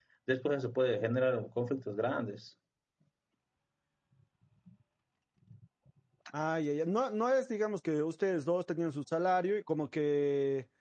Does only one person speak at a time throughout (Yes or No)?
Yes